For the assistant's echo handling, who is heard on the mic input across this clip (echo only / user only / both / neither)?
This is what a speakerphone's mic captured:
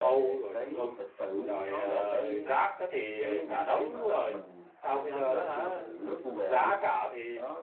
both